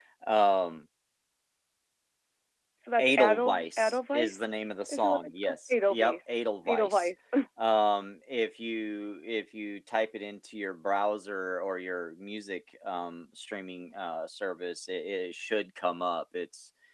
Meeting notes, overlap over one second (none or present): present